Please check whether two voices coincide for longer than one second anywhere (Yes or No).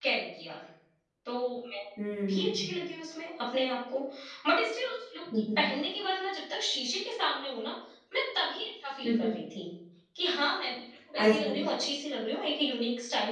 No